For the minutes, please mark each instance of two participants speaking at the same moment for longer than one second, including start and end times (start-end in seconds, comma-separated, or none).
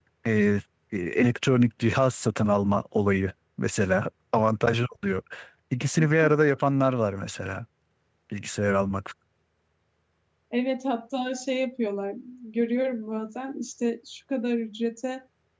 none